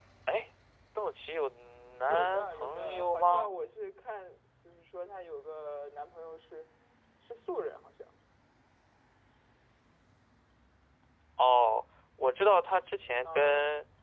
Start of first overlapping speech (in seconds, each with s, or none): 2.0 s